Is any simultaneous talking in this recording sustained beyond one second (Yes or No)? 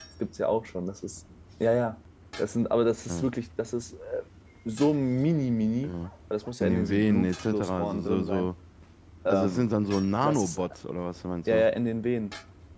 Yes